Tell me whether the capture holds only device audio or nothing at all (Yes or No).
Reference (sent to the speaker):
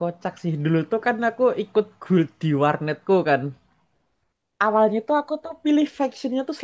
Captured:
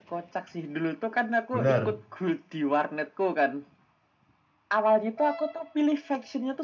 No